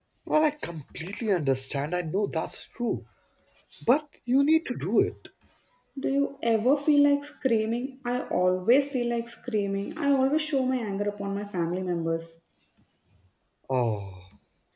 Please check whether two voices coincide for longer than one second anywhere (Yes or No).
No